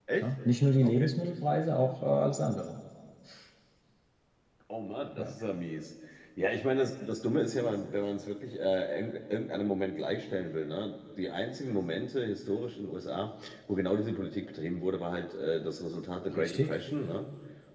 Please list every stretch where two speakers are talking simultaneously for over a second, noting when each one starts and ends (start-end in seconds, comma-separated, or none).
none